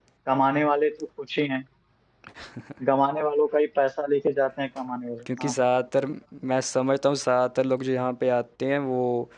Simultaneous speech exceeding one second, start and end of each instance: none

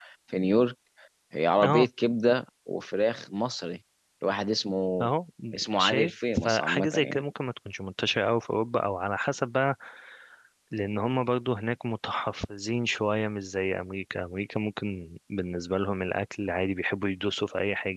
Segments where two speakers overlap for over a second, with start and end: 5.8-7.2

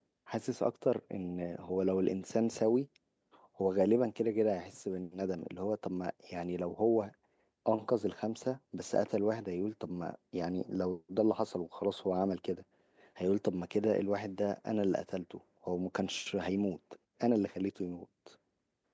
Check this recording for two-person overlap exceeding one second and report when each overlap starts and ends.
none

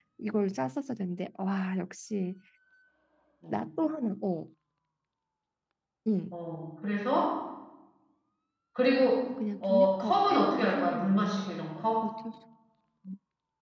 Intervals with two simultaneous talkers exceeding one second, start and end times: 9.6-11.3

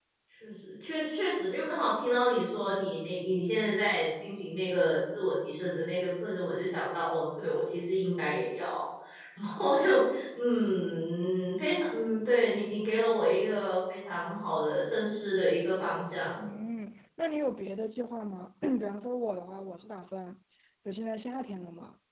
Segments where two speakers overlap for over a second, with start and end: none

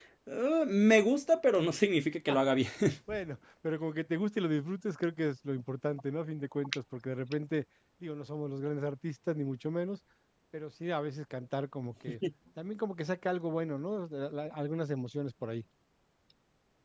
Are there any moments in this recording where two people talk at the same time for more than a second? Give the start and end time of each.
none

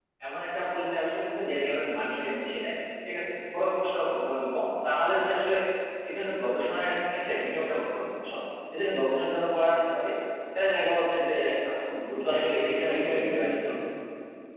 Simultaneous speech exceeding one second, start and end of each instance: 12.3-13.7

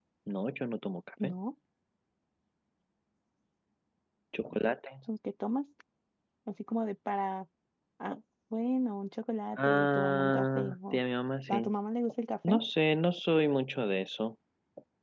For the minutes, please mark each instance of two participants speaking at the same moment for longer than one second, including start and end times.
9.6-11.0

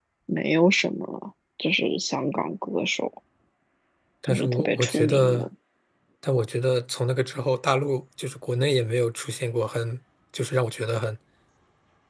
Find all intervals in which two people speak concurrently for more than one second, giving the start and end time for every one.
4.3-5.5

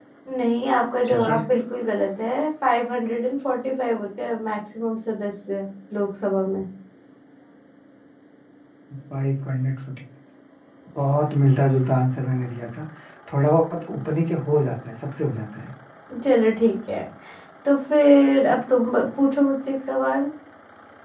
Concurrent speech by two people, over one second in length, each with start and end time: none

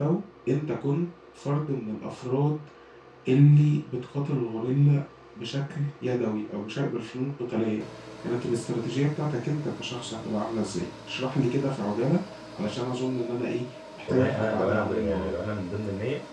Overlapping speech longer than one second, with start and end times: 14.1-15.4

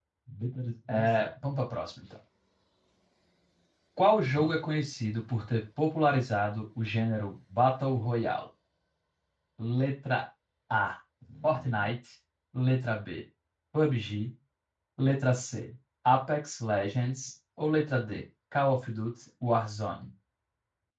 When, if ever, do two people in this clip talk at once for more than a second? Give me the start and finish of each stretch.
none

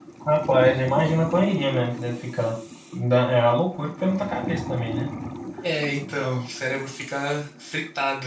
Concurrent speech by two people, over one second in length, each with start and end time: none

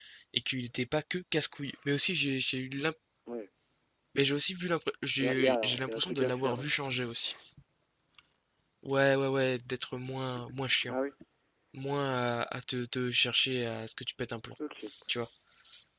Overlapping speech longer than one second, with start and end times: 5.2-6.7

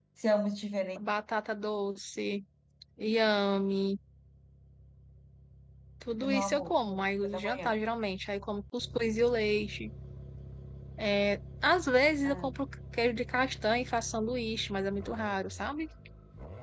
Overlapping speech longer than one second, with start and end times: 6.1-7.8

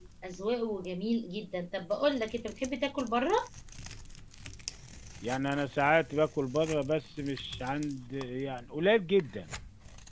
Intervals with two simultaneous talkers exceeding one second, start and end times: none

